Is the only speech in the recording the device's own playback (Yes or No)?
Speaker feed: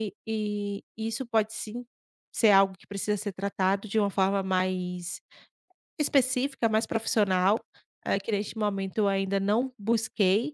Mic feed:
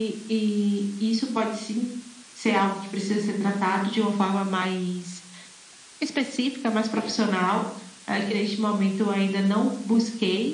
Yes